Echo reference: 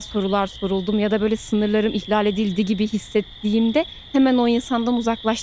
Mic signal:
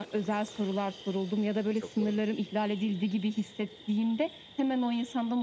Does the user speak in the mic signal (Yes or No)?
Yes